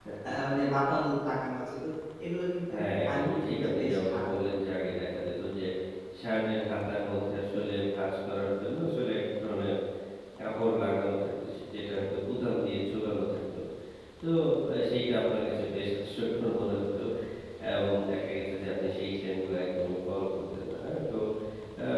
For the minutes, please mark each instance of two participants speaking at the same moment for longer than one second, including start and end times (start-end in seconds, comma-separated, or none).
3.1-4.3